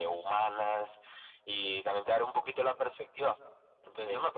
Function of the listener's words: taking over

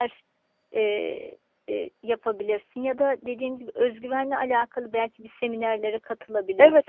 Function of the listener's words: taking over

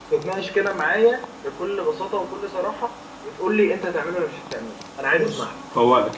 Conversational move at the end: taking over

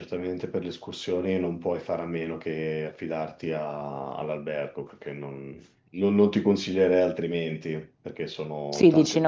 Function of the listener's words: taking over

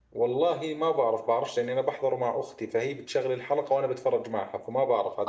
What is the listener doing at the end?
taking over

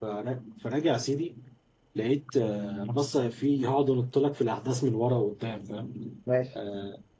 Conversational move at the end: listening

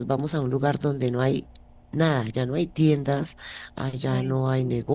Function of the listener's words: listening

